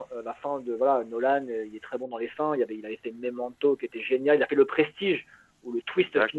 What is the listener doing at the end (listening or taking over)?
listening